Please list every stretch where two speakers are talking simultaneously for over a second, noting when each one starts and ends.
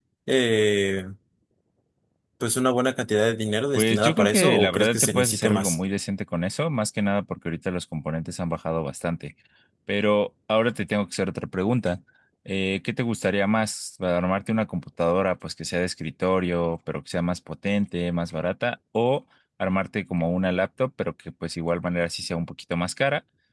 3.8-5.8

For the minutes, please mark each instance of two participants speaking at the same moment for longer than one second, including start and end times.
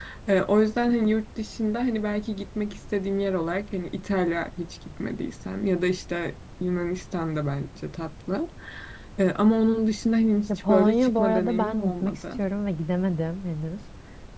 10.7-12.2

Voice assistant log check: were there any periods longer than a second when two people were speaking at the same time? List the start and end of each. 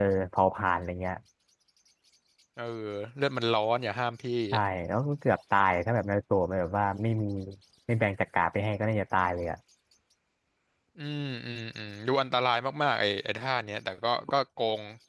none

